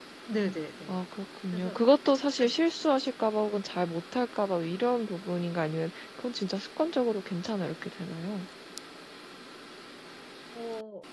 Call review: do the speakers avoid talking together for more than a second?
Yes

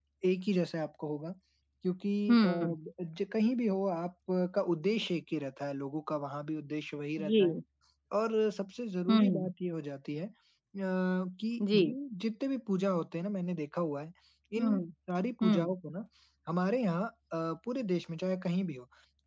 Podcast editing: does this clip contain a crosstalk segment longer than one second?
No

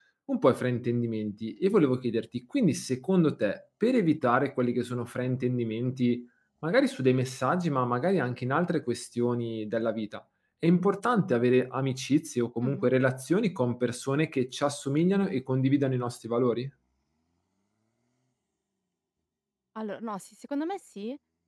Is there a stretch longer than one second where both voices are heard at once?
No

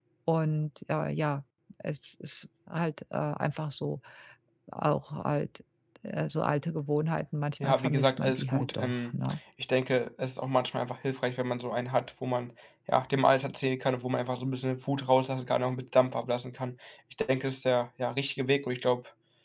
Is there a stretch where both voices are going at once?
Yes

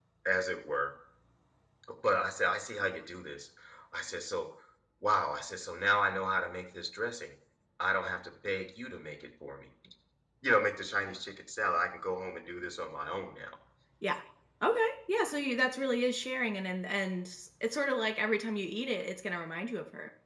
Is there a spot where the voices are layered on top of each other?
No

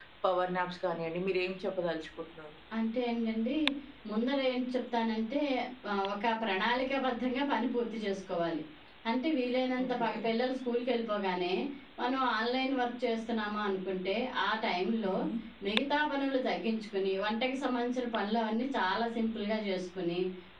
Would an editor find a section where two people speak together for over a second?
No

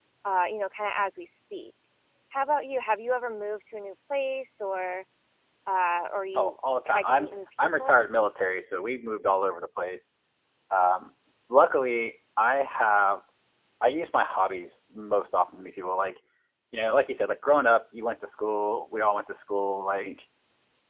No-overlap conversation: No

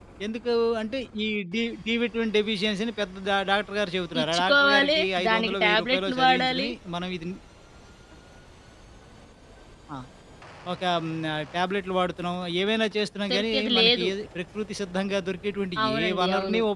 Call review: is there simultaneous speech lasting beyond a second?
Yes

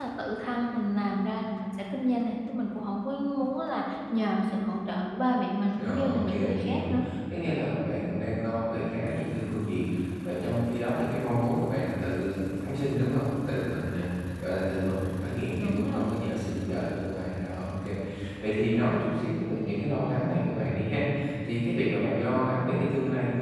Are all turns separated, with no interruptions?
No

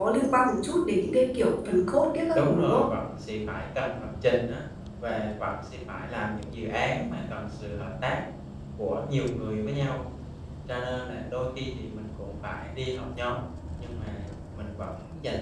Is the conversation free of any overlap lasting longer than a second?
Yes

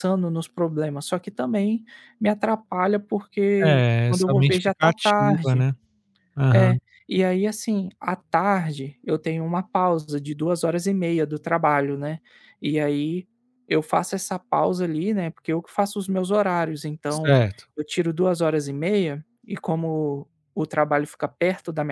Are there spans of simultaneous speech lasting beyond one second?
Yes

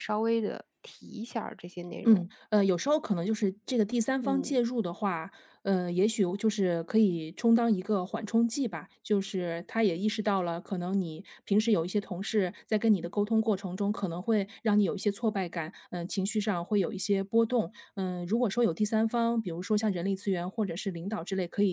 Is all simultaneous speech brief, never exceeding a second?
Yes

